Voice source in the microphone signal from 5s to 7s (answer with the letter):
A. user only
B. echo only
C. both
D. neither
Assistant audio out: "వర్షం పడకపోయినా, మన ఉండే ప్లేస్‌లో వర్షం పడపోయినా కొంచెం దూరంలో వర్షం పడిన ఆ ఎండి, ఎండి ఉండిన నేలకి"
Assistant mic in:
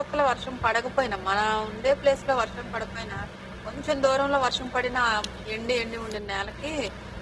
B